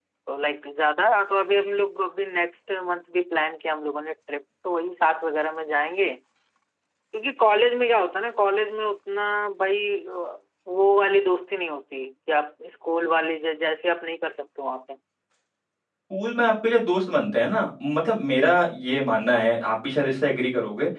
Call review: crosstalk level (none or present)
none